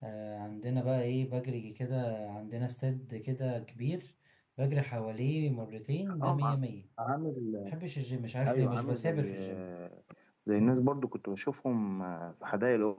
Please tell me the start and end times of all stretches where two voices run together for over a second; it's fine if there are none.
8.5-9.7

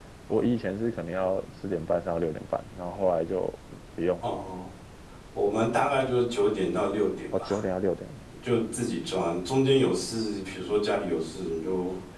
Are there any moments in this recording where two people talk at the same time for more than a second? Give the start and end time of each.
none

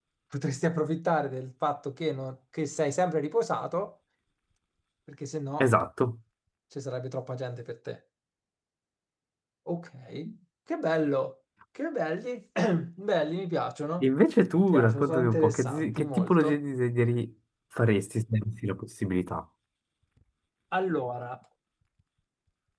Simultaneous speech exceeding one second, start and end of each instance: 14.6-16.6

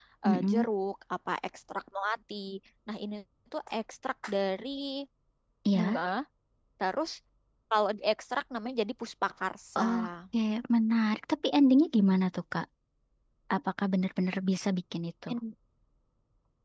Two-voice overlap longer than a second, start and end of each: none

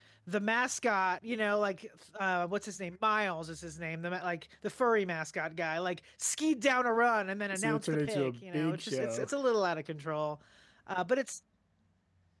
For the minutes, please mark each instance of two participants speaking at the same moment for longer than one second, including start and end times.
7.5-9.3

